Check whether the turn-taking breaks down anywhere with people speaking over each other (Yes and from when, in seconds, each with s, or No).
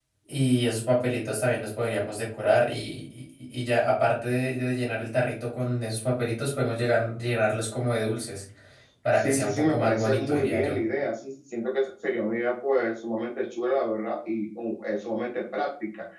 Yes, from 9.1 s